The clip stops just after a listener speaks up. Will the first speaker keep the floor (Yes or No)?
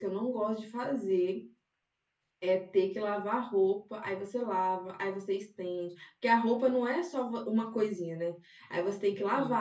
Yes